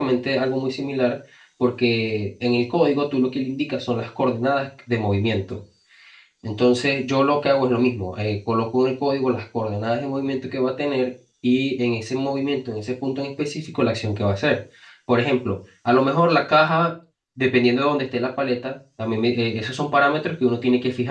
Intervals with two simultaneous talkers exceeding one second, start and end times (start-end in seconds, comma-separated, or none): none